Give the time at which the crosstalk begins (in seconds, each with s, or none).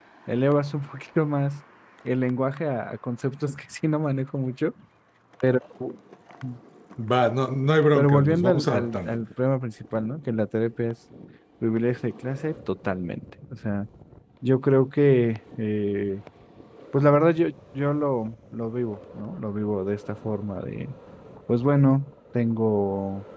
7.9 s